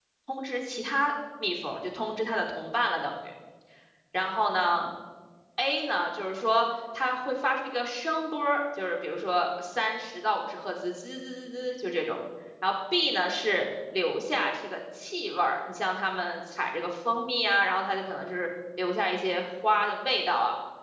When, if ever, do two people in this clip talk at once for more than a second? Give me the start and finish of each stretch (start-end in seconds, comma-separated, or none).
none